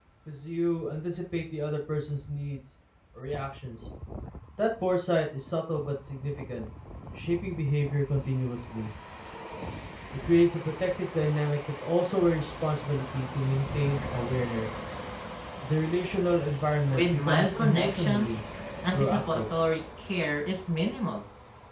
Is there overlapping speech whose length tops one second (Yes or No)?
Yes